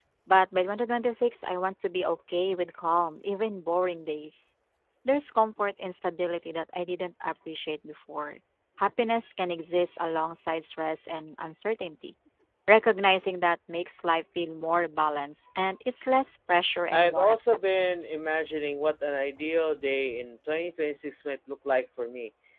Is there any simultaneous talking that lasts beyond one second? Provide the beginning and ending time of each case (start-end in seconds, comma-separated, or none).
16.9-18.2